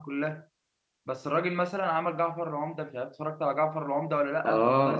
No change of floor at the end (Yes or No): No